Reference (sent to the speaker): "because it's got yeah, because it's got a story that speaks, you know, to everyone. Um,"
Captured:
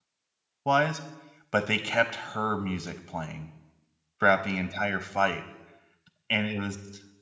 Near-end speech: present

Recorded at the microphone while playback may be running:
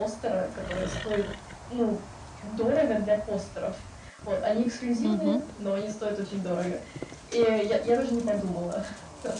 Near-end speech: present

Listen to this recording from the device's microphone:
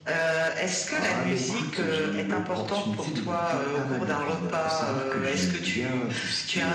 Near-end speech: none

